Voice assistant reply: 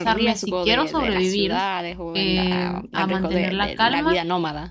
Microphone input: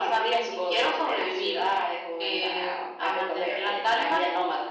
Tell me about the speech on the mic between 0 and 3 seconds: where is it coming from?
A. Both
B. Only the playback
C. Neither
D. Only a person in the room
B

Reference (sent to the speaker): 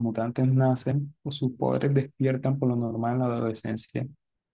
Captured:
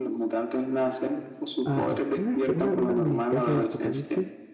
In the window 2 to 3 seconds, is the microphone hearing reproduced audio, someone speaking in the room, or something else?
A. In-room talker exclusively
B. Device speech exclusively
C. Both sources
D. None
C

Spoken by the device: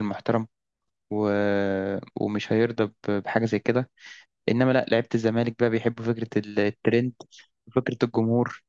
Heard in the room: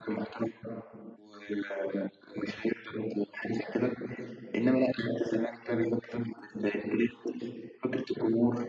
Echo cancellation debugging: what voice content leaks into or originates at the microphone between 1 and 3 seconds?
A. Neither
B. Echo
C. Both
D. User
B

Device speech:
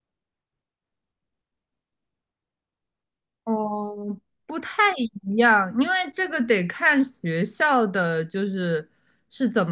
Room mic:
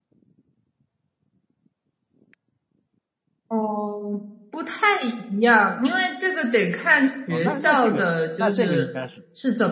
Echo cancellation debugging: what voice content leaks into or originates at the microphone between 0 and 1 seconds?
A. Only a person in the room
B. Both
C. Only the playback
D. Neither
D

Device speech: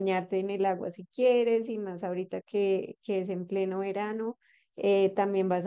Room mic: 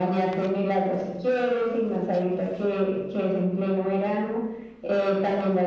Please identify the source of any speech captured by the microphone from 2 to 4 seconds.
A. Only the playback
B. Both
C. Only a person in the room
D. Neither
A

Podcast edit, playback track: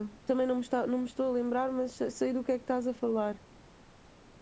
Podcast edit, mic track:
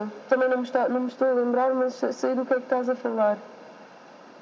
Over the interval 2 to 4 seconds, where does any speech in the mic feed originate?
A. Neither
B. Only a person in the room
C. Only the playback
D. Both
C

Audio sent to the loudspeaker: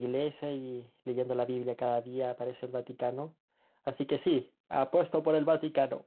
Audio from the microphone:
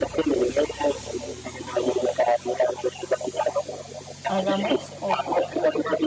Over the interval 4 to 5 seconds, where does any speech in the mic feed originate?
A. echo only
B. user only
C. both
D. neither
C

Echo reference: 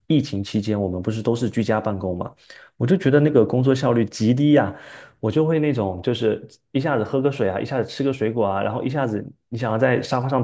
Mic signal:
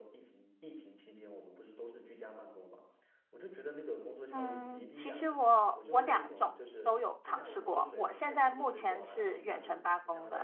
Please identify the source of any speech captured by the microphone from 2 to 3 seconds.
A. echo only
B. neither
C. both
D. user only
A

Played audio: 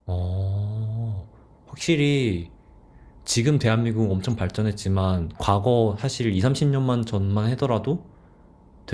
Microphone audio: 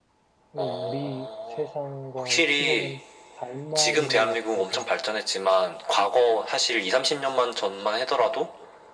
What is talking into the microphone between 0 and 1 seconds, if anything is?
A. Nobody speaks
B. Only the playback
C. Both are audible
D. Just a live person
C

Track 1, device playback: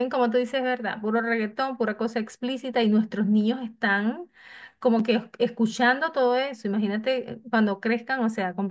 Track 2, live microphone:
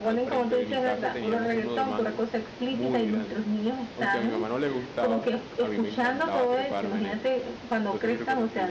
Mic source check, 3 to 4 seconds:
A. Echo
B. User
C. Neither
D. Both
D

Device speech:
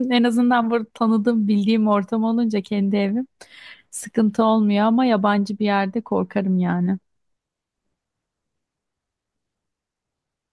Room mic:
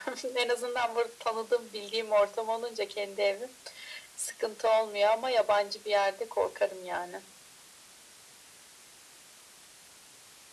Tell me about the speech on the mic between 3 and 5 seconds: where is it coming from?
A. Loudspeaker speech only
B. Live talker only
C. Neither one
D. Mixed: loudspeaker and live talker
A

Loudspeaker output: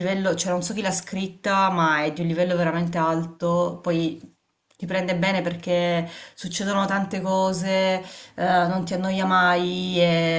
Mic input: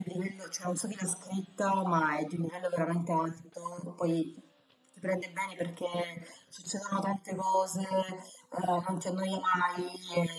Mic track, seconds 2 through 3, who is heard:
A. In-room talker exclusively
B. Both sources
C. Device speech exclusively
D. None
C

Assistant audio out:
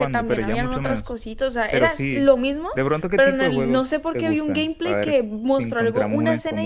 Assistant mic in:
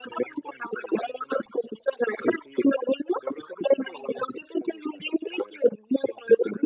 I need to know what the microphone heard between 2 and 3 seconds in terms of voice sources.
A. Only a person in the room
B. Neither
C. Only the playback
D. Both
C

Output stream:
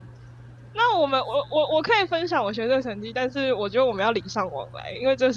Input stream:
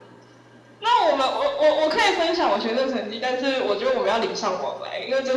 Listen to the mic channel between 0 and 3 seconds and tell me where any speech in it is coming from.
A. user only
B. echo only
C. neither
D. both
B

